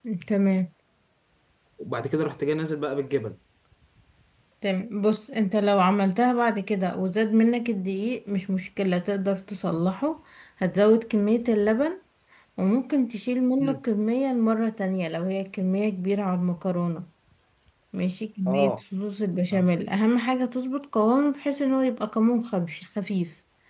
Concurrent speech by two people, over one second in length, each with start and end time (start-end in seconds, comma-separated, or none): none